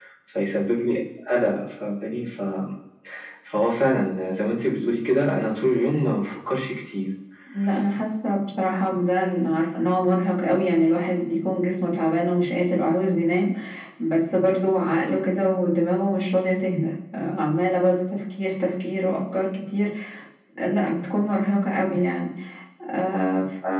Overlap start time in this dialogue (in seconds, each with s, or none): none